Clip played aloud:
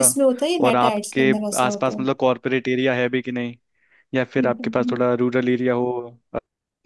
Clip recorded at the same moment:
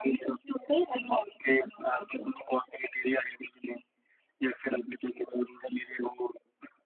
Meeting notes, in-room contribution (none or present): none